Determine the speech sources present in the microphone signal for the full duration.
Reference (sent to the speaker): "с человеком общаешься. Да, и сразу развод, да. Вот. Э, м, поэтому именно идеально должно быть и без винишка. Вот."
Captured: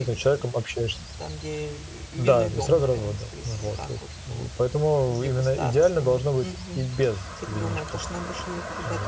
both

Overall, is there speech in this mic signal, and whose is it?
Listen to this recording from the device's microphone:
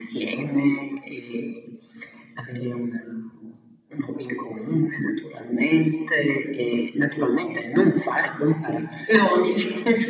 echo only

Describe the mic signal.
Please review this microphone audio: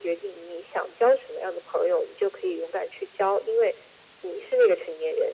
echo only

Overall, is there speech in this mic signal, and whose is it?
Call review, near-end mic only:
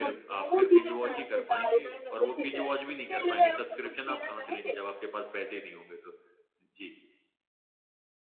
both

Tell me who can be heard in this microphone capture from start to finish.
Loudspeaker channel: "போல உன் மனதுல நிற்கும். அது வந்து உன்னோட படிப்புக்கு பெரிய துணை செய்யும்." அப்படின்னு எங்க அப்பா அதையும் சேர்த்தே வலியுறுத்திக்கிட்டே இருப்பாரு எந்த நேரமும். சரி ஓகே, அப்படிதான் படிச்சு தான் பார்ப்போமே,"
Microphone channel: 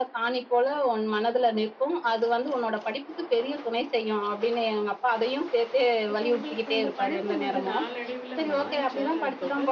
both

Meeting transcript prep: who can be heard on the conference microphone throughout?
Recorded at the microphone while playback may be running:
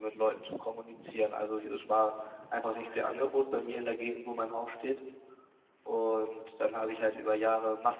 echo only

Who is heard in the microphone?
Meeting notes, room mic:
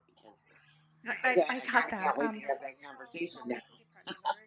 both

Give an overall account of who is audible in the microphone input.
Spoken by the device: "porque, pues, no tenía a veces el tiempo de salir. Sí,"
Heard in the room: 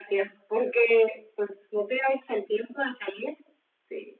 echo only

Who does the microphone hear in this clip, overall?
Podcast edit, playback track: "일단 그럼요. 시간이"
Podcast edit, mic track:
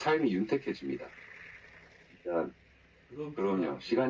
both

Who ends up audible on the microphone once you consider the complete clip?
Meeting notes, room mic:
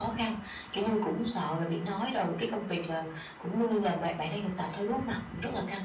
echo only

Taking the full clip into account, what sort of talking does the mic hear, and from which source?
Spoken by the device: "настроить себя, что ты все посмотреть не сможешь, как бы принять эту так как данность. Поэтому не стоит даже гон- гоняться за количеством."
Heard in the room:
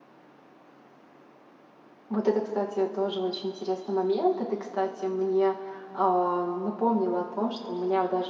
user only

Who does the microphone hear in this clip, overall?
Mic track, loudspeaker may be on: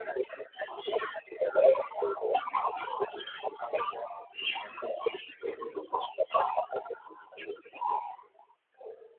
echo only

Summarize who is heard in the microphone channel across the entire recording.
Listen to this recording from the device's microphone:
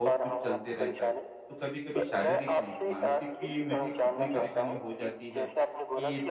both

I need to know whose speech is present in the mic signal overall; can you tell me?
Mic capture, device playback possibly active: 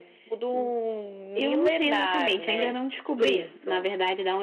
both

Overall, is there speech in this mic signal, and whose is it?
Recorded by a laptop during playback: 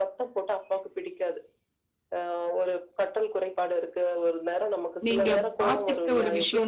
both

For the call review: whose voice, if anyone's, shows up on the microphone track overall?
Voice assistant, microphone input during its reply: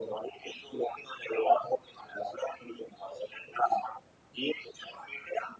echo only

